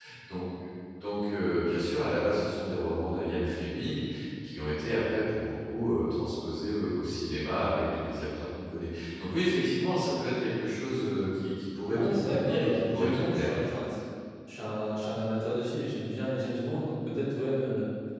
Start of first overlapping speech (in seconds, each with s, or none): 11.9 s